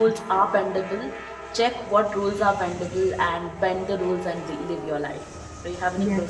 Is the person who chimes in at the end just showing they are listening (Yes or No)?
No